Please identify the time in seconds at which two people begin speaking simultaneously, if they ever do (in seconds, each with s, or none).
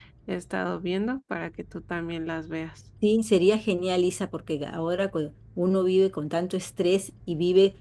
none